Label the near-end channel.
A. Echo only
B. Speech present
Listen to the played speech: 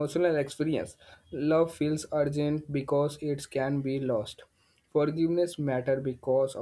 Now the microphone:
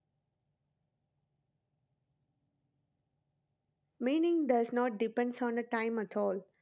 B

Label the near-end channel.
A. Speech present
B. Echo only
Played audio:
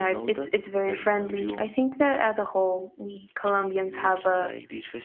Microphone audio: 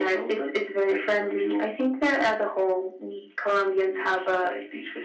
B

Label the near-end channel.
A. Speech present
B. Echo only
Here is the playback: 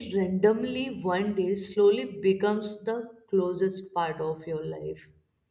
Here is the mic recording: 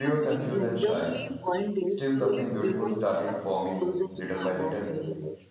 A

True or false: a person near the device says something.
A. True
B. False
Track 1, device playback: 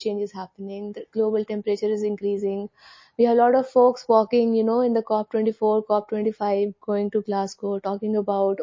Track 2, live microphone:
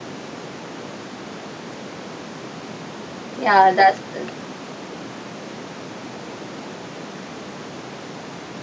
A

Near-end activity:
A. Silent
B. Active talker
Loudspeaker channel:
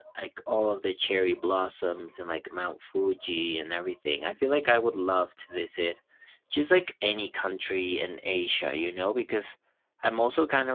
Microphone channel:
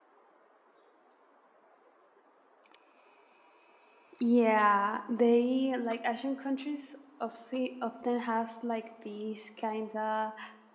B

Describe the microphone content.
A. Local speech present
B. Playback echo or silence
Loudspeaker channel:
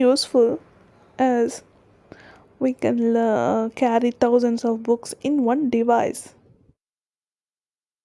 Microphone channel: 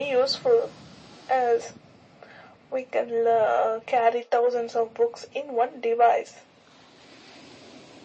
B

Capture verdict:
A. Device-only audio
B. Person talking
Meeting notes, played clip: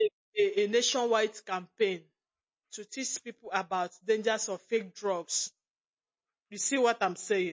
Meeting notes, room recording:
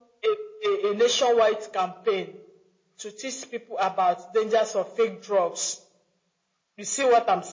A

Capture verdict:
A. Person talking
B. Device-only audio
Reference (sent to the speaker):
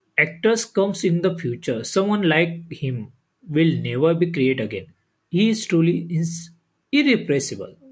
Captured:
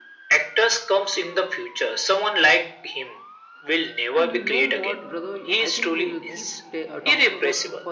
A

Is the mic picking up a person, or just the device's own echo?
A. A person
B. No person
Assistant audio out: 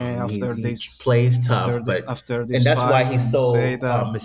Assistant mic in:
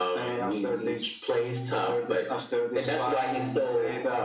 B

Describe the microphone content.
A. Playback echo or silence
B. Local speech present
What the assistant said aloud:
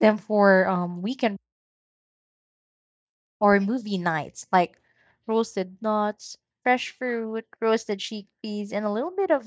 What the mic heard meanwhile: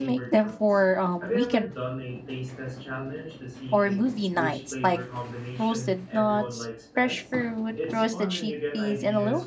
B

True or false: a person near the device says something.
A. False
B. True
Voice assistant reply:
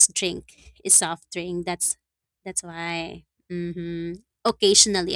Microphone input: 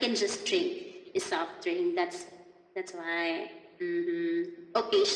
A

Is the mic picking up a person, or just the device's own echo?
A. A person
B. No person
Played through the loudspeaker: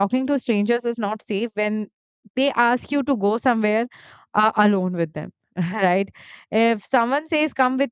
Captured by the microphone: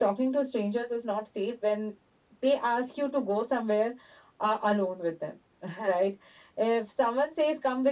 B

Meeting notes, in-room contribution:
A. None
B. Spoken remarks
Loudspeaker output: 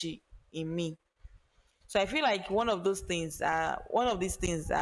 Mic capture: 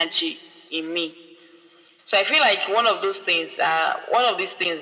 A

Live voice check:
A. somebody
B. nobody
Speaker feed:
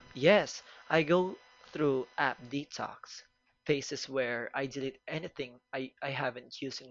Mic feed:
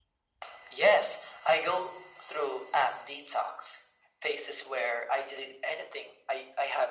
B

